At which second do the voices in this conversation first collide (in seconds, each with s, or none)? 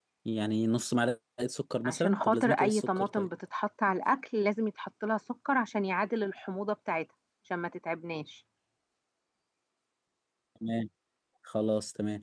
1.8 s